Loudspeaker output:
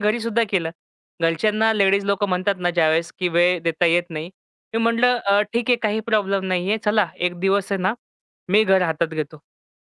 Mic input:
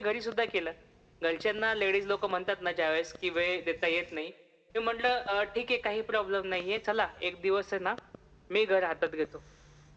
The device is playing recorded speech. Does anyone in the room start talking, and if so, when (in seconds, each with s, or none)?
none